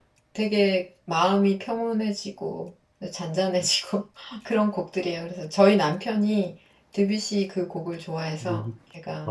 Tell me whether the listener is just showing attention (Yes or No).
No